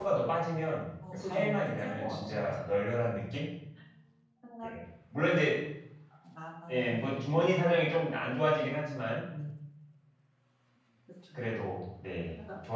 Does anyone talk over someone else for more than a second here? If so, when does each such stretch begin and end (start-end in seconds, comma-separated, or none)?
1.1-2.6